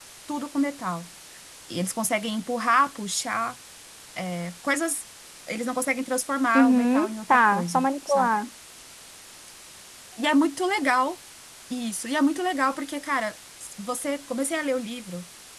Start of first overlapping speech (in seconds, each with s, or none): 6.5 s